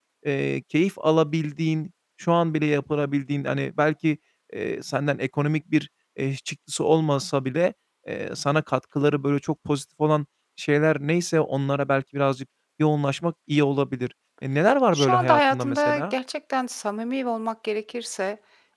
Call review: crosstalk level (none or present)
present